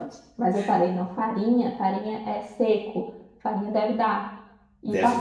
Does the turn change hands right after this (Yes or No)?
No